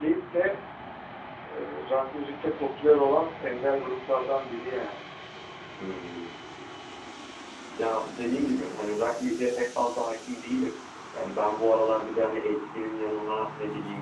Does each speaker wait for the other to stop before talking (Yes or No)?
Yes